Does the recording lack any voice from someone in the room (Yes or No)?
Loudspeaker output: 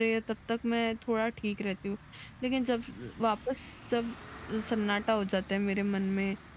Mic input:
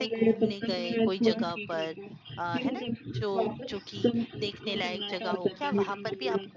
No